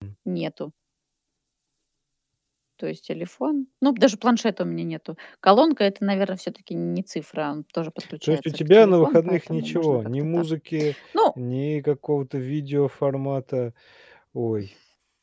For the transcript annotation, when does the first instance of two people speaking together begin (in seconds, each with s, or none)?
8.2 s